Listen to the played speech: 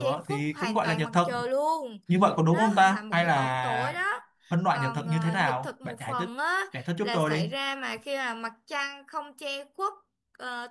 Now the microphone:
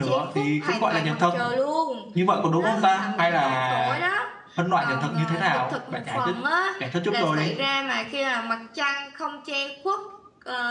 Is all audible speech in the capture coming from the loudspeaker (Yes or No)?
Yes